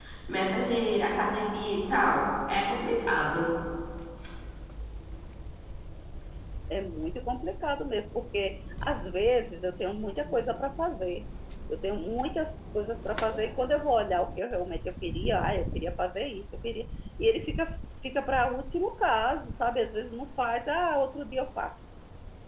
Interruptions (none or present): none